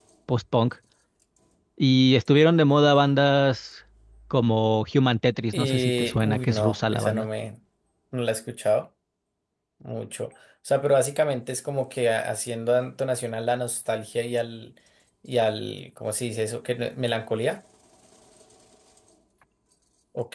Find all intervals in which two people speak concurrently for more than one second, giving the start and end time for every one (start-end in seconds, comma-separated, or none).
5.5-7.3